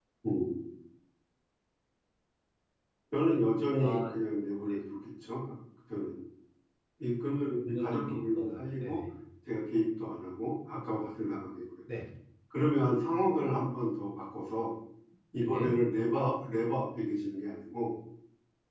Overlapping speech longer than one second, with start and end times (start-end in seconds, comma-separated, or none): 7.7-9.0